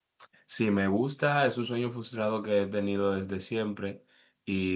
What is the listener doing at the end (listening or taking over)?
listening